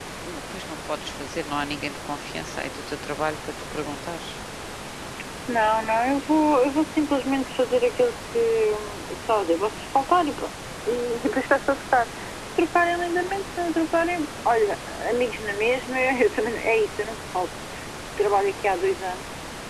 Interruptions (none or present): none